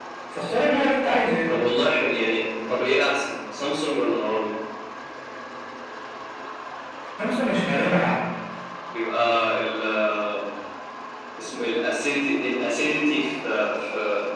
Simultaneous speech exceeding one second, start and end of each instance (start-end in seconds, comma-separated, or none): none